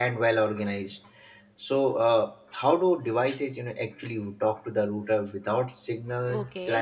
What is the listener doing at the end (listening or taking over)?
taking over